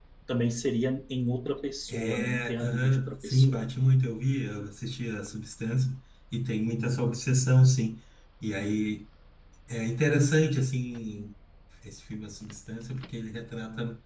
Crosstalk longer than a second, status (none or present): present